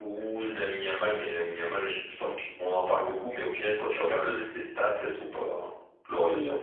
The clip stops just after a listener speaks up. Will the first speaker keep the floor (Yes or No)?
No